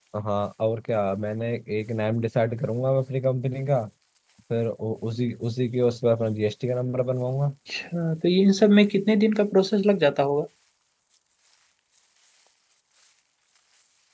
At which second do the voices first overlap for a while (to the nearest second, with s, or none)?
none